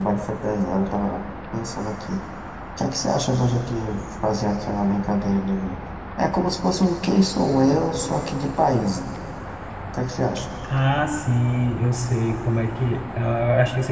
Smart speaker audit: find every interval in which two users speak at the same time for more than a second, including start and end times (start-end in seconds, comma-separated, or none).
none